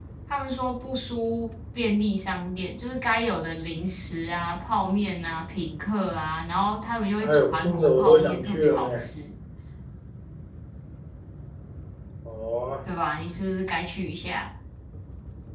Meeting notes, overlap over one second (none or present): present